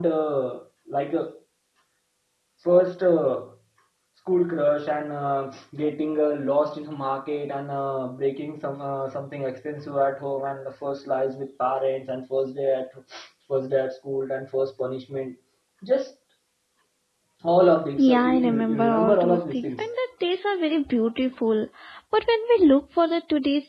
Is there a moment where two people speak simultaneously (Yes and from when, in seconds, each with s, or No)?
Yes, from 18.0 s